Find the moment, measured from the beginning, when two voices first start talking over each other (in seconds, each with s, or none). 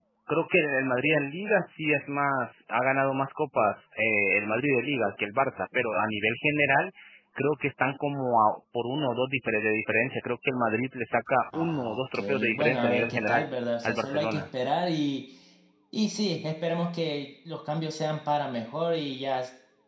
11.5 s